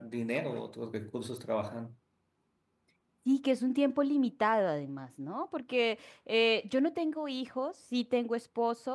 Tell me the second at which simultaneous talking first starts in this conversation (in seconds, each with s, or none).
none